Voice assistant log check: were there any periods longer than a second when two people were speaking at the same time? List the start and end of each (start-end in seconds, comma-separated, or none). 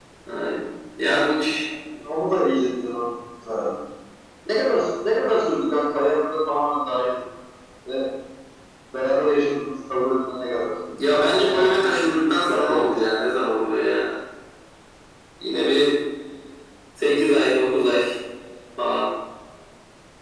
11.1-13.0